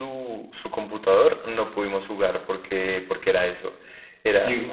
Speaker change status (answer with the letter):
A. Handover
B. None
B